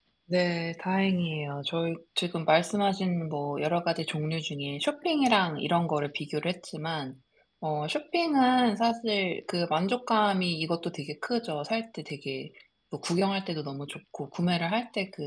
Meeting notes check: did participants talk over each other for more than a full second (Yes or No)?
No